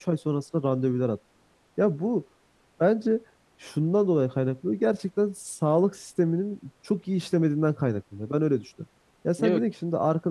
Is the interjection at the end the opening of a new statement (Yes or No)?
No